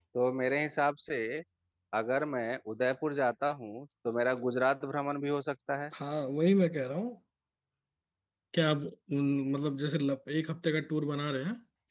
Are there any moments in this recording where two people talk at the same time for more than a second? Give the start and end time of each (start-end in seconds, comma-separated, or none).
none